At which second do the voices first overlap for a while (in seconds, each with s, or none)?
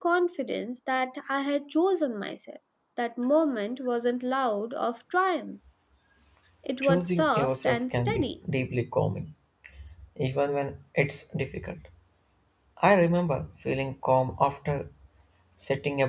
6.8 s